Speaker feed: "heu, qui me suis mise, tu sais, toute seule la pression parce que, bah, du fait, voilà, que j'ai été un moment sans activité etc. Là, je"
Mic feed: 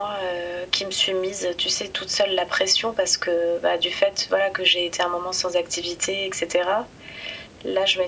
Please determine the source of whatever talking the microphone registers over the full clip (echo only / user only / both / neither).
echo only